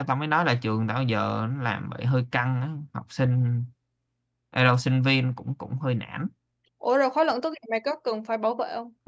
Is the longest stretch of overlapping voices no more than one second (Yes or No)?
Yes